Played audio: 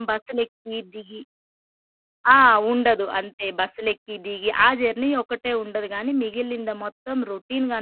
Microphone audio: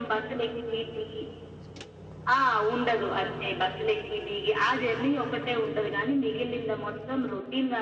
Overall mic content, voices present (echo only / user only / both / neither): echo only